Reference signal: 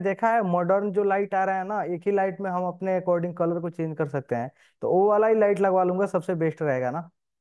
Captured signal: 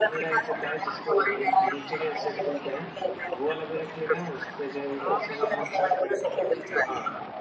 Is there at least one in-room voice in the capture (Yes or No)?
Yes